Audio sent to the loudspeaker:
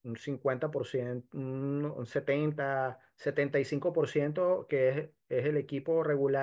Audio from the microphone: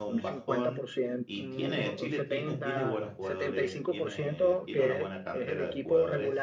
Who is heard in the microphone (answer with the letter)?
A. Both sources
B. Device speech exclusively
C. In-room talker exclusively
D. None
A